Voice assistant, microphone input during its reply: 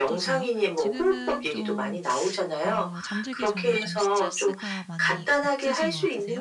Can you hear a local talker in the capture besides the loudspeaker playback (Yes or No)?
Yes